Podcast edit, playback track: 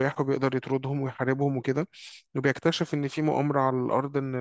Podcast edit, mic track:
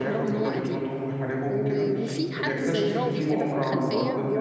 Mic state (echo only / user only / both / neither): both